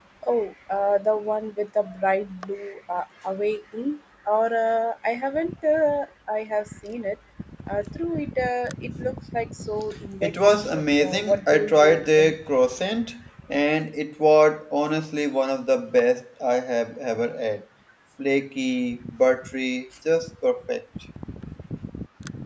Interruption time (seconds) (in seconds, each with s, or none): 10.2 s